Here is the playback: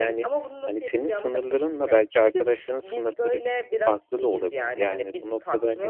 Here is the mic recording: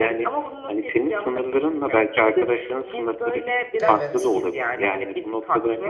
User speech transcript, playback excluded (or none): Evet.